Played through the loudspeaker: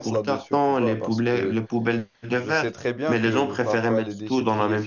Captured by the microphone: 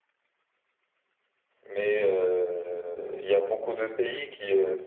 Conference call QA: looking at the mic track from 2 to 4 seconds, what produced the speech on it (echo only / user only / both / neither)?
user only